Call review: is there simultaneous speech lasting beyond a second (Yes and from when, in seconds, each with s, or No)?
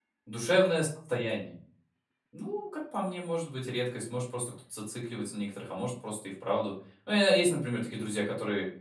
No